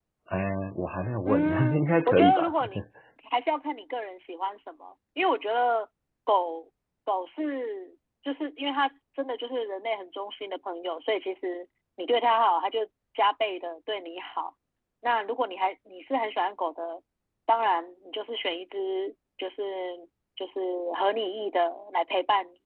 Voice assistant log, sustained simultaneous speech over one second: present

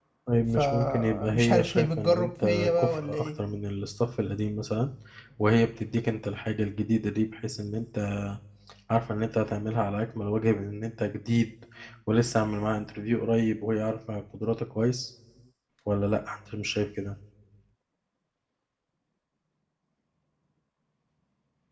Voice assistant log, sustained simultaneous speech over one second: present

